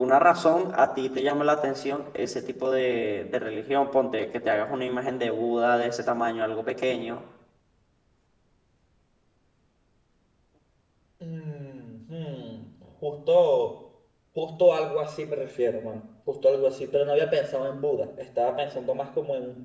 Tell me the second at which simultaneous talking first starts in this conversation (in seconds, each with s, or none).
none